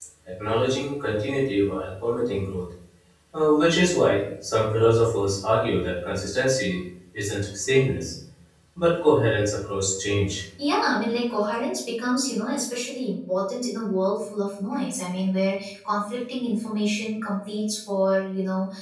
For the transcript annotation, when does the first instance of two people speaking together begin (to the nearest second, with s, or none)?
none